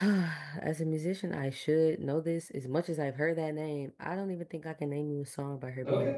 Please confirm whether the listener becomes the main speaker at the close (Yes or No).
Yes